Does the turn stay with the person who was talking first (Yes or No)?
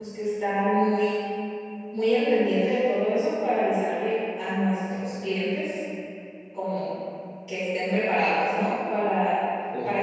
Yes